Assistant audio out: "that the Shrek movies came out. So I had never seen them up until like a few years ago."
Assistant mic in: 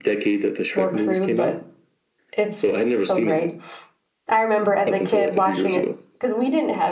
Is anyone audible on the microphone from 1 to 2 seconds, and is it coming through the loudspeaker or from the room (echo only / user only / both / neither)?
both